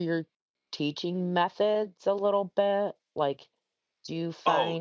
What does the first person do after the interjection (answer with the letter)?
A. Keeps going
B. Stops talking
B